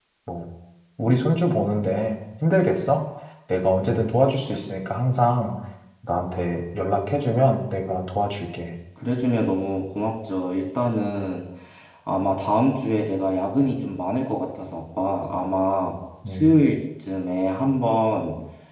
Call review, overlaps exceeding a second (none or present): none